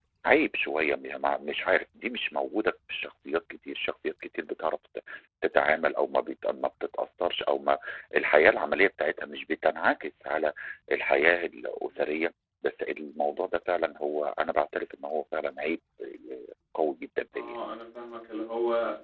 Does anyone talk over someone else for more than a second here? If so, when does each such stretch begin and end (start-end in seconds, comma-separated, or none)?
none